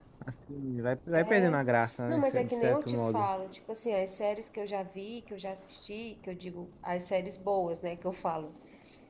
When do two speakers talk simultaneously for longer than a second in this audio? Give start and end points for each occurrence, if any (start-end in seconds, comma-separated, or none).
2.1-3.3